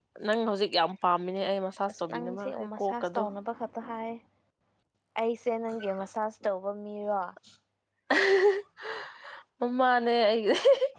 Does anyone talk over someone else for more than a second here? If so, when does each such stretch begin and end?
1.9-3.2

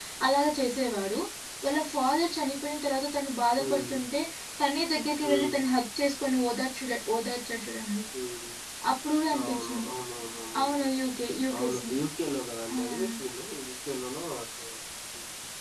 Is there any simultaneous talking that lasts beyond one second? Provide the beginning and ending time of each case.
none

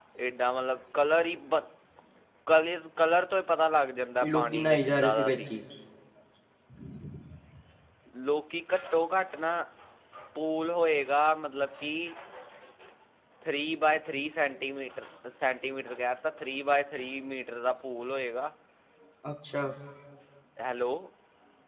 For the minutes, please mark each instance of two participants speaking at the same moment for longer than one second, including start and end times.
4.2-5.5

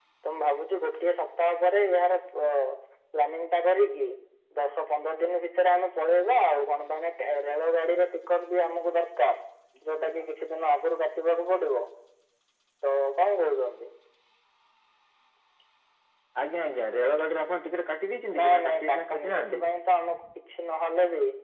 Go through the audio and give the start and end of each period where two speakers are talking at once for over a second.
18.4-19.6

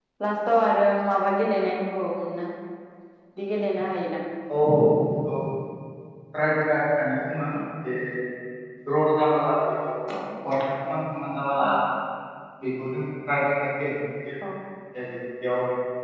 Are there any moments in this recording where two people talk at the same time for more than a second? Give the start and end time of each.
none

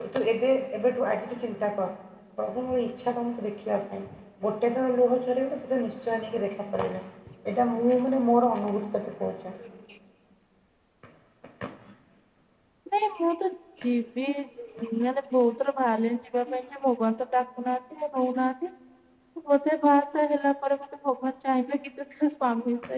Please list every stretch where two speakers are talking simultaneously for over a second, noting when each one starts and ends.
none

